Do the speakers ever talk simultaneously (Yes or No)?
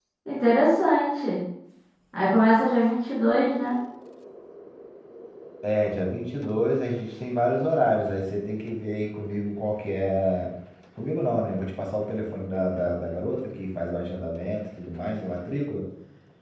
No